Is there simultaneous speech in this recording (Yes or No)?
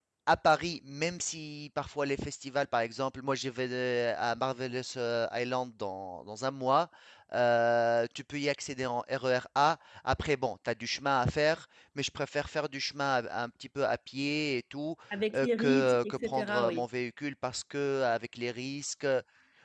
Yes